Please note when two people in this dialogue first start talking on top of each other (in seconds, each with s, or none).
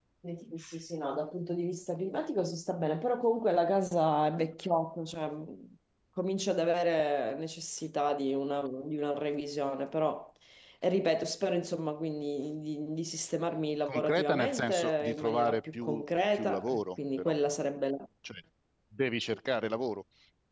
13.9 s